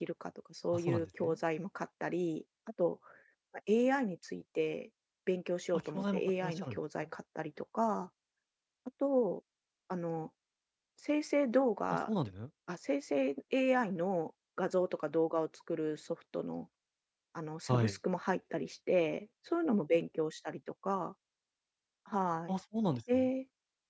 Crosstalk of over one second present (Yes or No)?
Yes